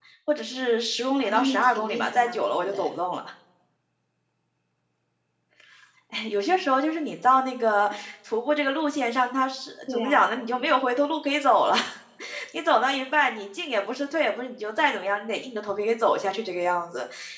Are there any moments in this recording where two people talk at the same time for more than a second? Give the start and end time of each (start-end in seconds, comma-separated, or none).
1.2-3.0